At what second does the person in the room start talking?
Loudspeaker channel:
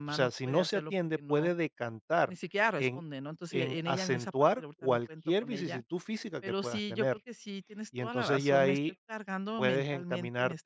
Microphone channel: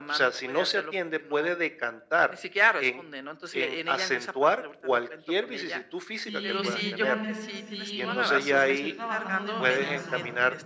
6 s

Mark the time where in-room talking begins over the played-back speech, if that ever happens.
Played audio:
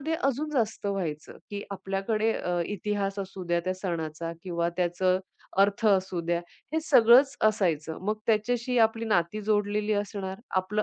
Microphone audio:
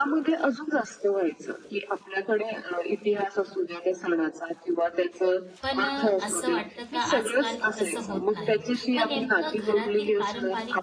6 s

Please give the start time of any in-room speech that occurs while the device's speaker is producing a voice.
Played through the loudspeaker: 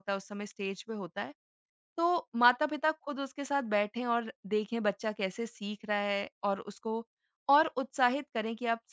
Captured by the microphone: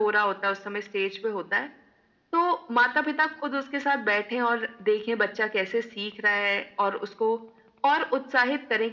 none

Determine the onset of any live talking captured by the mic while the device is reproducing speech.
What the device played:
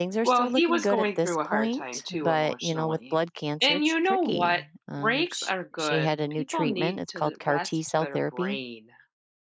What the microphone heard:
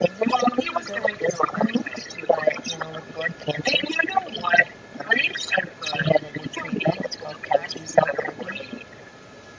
none

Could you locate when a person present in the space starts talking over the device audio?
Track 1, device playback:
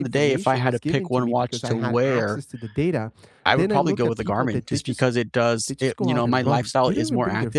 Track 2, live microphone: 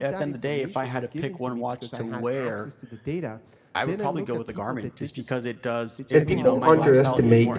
6 s

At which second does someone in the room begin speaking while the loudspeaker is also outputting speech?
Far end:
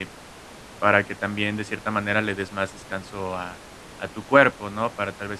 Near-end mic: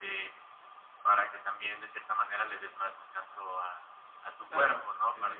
4 s

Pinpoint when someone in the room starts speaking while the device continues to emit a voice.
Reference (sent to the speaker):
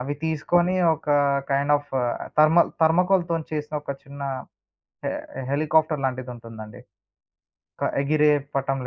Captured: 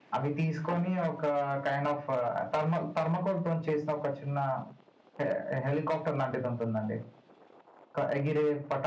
none

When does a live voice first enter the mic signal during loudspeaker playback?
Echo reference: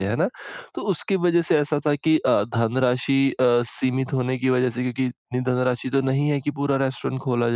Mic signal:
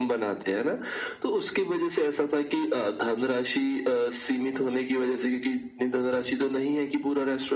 none

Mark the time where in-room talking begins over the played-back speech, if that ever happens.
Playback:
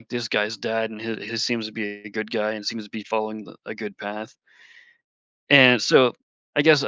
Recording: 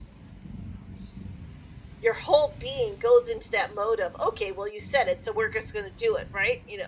2 s

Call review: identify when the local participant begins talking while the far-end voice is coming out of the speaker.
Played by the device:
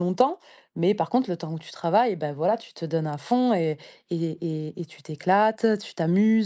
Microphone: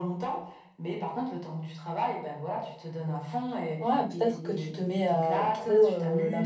4 s

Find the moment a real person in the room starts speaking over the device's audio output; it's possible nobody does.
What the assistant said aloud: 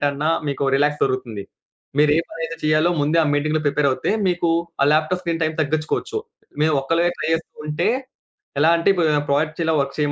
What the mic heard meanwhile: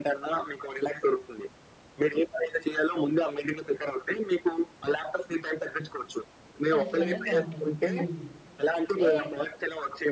7 s

